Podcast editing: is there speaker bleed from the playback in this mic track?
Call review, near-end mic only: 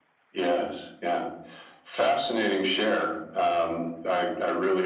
Yes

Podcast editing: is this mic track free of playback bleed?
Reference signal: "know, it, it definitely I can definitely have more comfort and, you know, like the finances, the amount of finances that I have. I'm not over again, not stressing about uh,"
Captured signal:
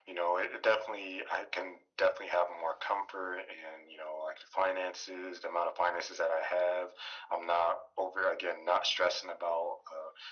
No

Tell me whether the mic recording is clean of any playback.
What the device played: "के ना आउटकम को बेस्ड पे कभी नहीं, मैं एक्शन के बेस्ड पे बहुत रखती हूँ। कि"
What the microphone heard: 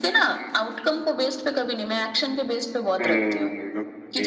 No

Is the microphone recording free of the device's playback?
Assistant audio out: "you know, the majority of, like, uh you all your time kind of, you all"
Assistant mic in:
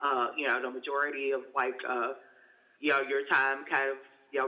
No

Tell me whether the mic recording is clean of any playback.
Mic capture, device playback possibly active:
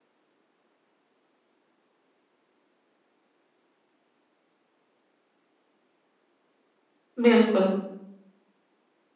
Yes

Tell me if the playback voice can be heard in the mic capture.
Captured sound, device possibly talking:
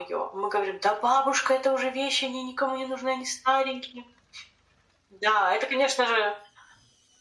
Yes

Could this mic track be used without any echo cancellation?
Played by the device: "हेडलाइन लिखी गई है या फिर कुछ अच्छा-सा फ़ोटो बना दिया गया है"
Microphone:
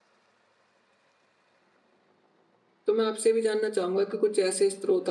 Yes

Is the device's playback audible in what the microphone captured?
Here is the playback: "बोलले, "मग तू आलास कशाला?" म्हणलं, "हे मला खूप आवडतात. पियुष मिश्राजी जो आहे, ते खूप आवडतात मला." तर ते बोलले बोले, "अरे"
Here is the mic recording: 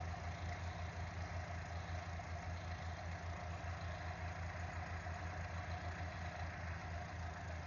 No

